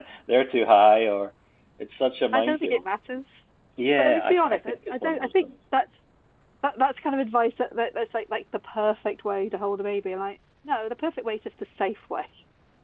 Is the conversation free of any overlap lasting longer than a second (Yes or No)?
No